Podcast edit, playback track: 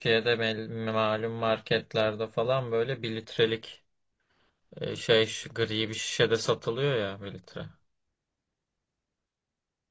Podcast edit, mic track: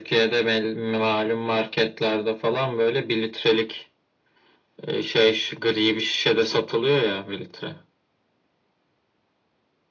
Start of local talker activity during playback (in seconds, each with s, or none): none